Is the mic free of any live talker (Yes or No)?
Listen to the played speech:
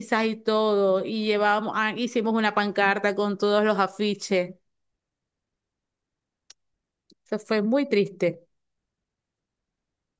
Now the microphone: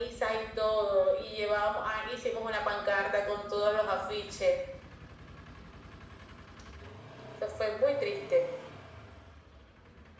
Yes